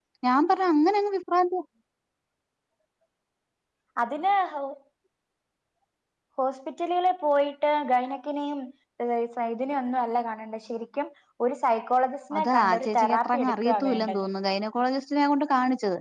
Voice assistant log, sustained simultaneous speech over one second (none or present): present